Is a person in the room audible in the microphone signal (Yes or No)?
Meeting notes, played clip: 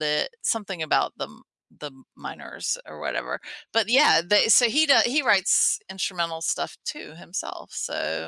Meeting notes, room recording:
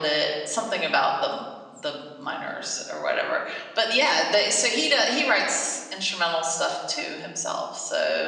No